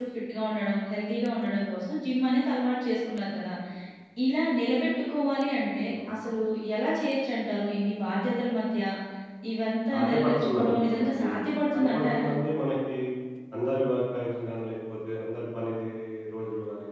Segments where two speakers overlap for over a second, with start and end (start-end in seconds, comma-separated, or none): 9.9-11.2